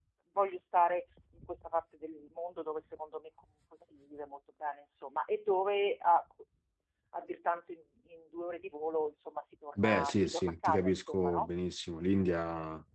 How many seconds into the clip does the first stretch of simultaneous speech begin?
9.8 s

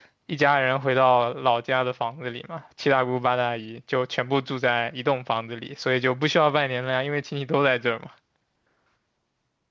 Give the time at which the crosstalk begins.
none

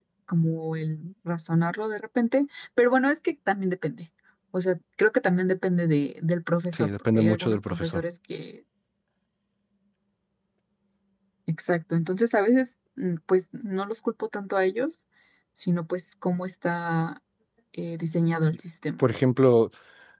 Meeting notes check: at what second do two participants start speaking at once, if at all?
6.7 s

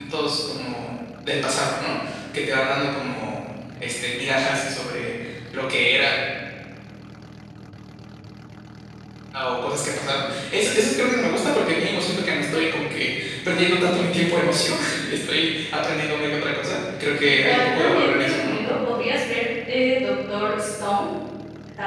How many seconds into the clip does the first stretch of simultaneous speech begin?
17.2 s

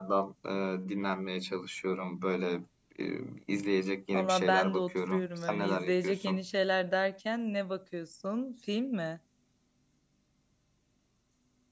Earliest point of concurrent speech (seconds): 4.1 s

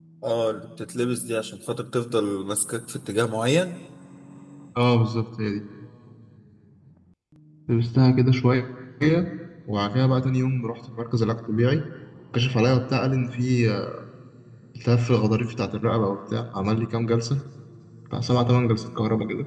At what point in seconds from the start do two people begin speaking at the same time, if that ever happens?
none

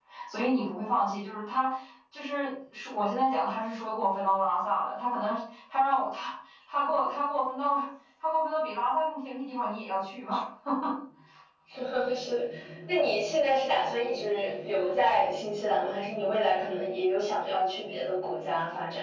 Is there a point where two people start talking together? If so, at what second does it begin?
none

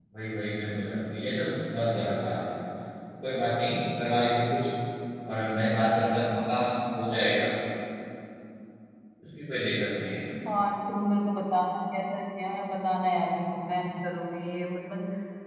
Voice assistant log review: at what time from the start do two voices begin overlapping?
none

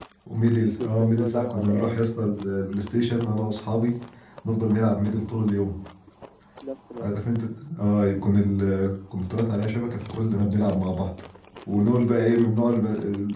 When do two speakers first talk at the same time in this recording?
0.6 s

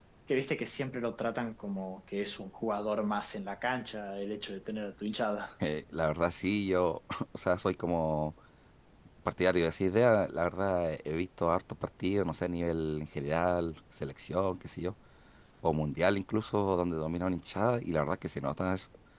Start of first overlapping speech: none

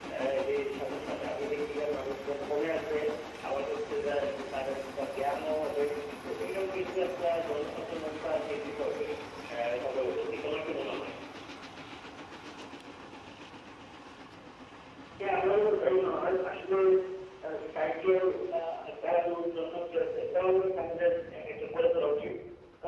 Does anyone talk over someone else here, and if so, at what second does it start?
none

